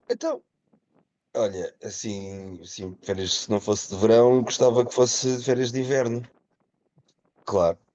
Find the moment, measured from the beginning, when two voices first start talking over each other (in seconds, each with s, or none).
none